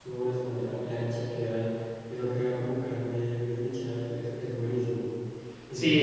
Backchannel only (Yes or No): No